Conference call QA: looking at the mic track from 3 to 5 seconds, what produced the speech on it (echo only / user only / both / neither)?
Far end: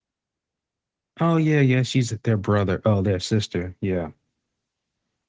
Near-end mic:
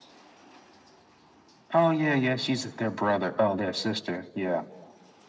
echo only